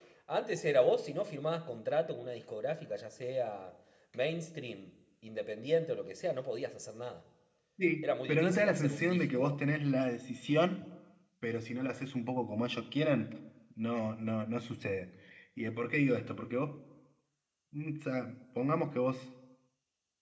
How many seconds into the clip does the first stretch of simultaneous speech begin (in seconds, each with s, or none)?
8.0 s